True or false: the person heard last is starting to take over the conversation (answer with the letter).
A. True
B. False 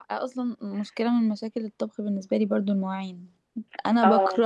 B